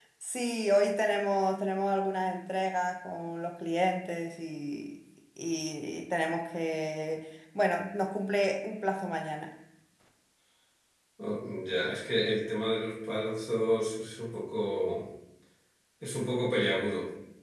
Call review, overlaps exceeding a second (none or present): none